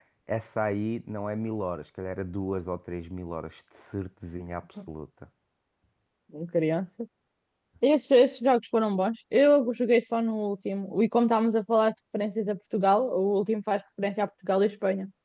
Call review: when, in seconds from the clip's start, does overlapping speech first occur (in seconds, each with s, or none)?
none